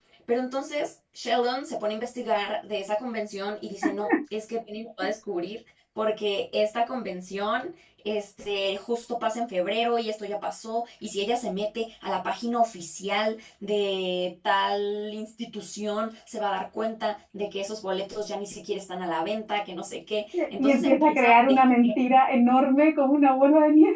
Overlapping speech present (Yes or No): Yes